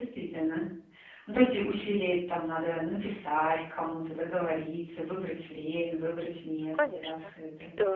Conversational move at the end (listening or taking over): taking over